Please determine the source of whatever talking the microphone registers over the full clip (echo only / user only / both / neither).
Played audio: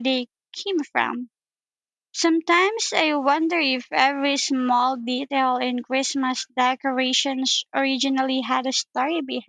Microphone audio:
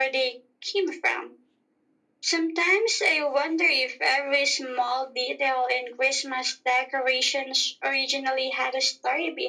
echo only